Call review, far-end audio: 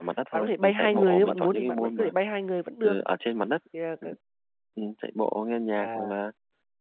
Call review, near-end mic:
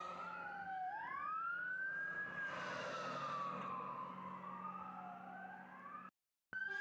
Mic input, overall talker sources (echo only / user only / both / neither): neither